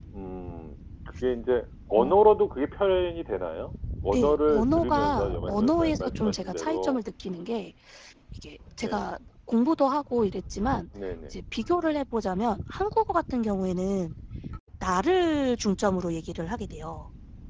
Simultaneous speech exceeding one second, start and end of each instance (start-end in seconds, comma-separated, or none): 4.1-7.0